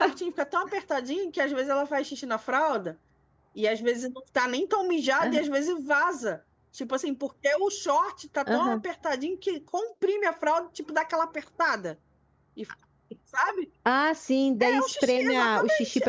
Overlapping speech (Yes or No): Yes